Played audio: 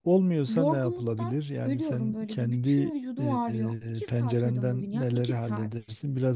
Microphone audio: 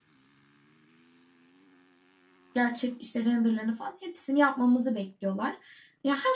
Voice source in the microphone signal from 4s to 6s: user only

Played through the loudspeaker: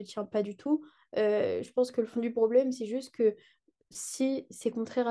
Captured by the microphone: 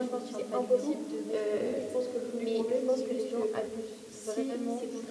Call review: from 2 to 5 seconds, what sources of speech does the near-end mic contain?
both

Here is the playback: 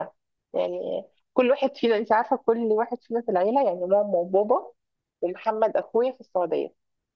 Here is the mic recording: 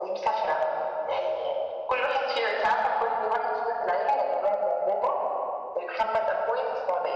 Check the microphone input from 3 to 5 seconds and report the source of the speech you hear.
echo only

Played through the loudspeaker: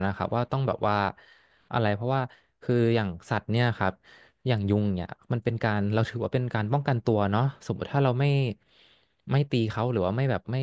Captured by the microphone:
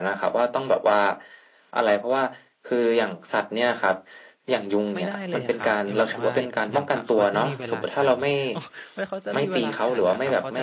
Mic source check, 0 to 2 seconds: echo only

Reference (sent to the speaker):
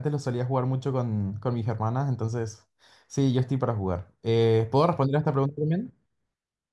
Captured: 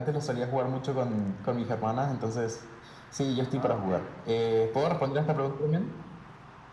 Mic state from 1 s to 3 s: echo only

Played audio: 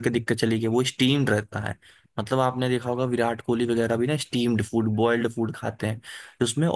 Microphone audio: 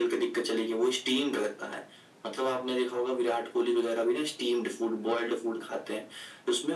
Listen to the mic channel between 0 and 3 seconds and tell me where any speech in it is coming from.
echo only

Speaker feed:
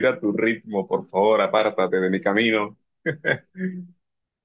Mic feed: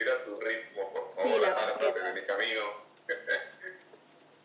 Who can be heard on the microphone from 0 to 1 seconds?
echo only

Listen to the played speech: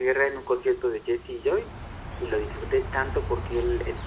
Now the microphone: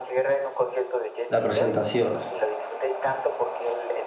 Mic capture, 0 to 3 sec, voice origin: both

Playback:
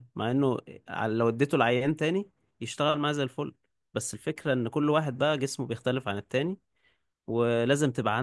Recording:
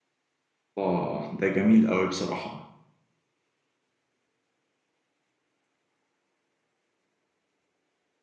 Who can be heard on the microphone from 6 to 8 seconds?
neither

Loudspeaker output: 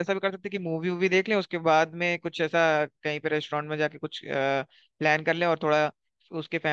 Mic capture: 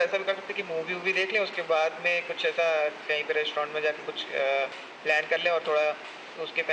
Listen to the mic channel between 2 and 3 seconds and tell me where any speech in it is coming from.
echo only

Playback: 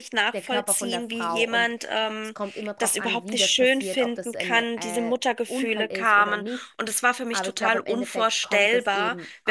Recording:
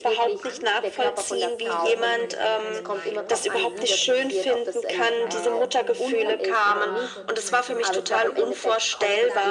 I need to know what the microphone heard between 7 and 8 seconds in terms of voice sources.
both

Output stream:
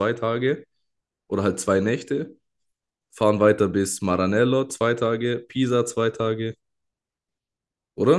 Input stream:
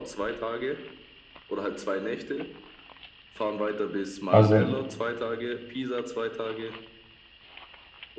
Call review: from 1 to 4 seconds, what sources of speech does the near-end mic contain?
echo only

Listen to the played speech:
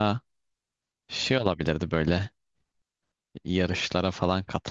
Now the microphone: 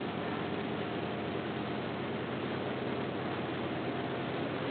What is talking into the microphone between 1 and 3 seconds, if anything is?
neither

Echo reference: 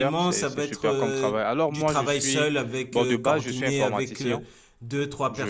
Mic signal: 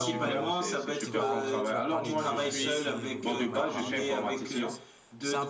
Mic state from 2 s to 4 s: both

